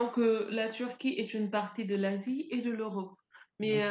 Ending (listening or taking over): listening